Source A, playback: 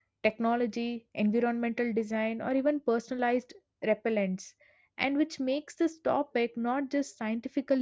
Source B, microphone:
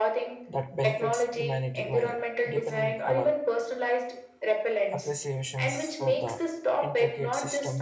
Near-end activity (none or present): present